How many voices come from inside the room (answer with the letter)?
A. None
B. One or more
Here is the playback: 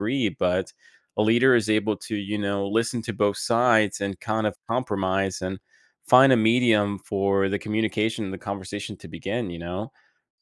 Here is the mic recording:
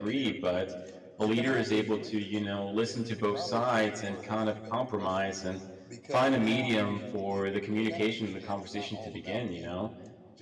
B